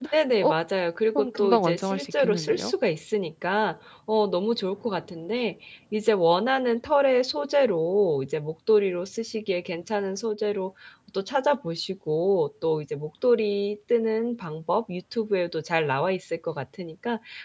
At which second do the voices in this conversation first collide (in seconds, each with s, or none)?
1.1 s